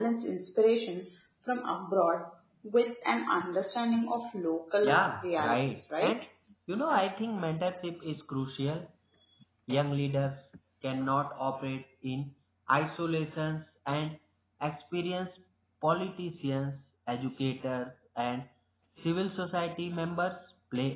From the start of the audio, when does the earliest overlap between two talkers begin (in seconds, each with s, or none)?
4.8 s